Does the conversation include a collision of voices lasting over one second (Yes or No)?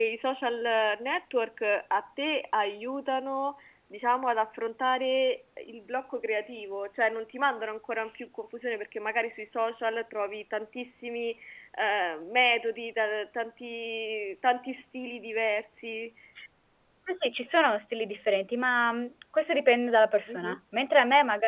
No